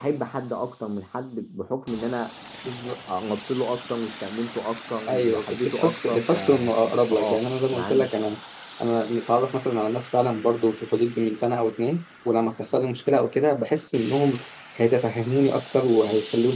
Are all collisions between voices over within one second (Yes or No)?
No